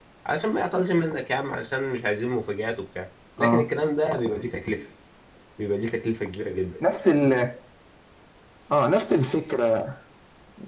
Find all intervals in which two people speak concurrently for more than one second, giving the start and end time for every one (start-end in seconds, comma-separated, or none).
none